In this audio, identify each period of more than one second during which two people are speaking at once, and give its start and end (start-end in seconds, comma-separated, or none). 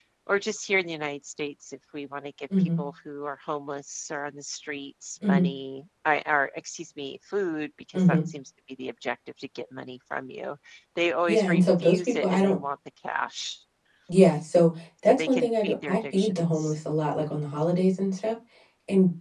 11.3-12.6, 15.1-16.7